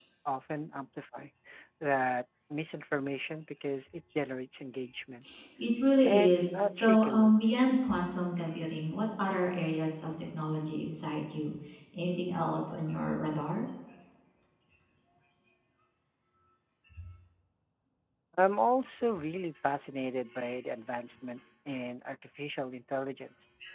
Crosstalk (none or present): present